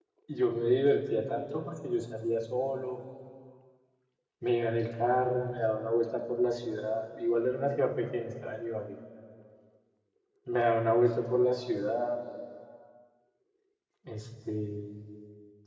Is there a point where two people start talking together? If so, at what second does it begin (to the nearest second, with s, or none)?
none